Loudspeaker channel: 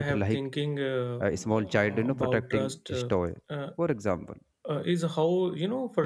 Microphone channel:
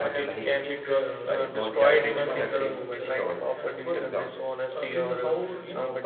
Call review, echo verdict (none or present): present